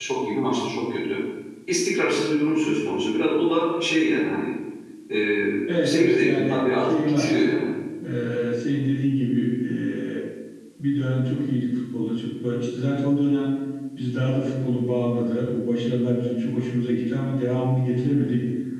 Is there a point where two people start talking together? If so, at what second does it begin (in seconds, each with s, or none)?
5.8 s